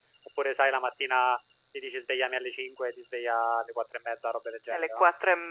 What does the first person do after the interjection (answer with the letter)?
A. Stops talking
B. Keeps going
A